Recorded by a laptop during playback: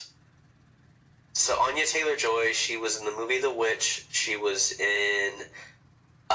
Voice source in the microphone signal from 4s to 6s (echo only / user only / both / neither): echo only